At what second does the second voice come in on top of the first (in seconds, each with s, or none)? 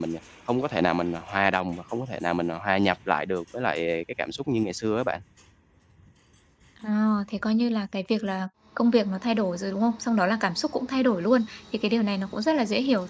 none